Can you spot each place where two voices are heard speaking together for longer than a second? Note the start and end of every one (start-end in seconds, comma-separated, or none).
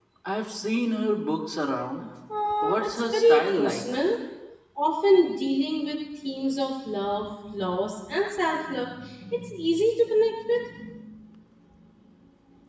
2.6-3.8